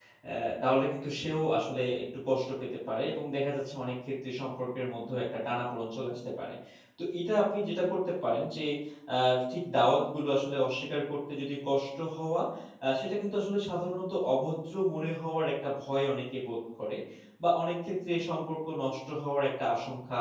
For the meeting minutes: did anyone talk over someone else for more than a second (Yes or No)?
No